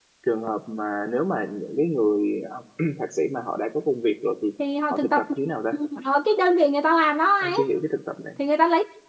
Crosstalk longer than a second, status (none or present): none